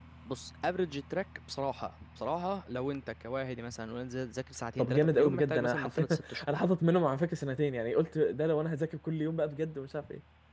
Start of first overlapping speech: 5 s

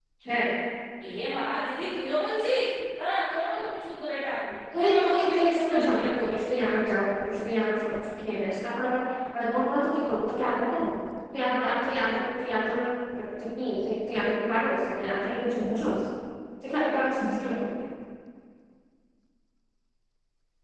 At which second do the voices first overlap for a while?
5 s

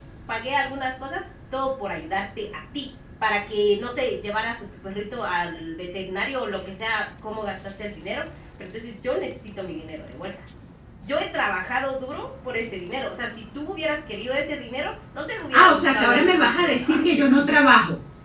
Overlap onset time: 16 s

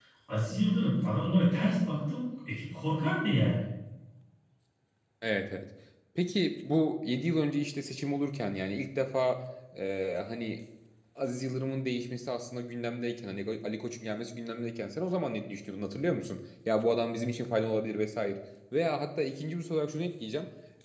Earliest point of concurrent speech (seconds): none

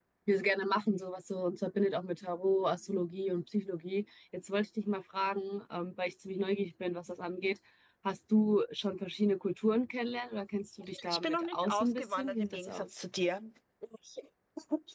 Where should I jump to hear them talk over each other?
11 s

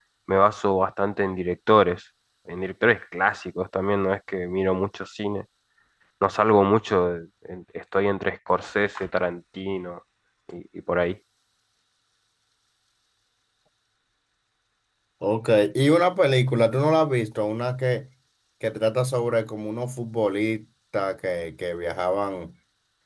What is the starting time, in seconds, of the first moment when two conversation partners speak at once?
none

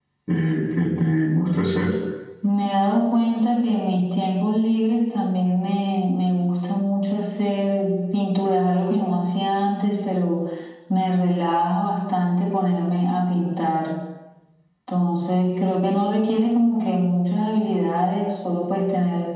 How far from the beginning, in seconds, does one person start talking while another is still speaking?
none

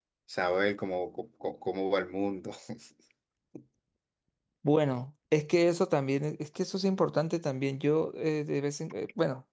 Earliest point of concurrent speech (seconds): none

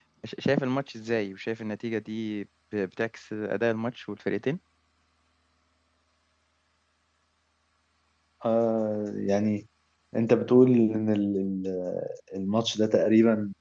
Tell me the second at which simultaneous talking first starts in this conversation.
none

